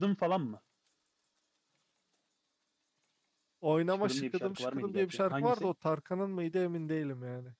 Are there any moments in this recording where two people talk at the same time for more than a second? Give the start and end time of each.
4.0-5.7

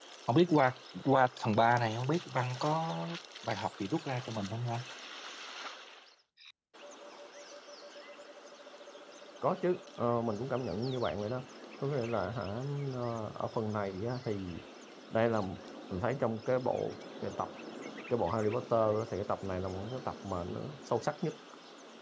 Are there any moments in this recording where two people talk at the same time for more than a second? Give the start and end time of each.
none

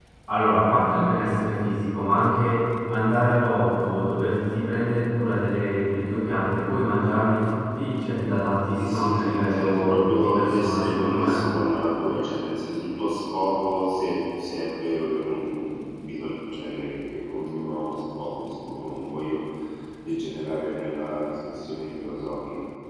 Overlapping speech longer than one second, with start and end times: 8.8-11.4

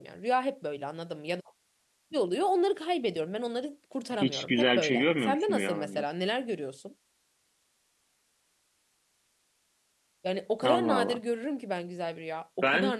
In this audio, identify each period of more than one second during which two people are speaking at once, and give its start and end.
4.1-6.0

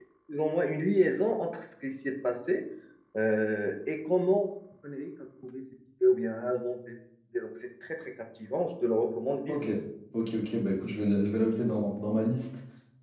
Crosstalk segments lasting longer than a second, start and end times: none

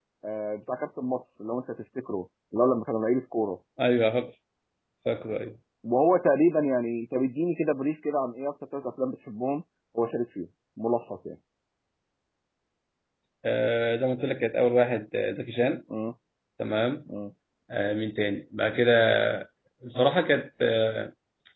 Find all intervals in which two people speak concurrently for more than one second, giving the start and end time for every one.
none

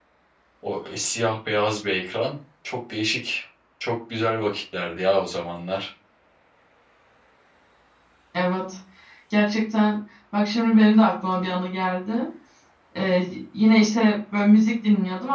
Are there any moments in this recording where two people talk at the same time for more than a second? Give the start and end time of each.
none

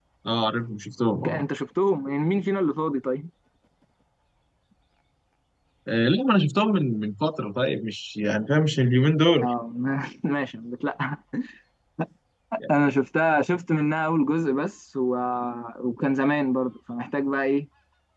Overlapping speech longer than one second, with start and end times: none

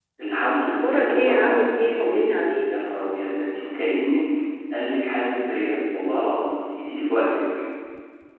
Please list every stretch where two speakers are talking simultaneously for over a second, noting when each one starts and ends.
0.6-2.7

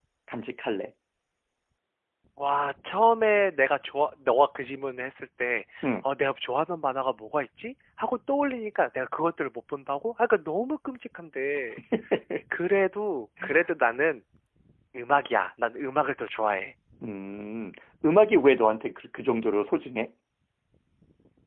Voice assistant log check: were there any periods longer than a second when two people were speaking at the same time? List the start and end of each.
none

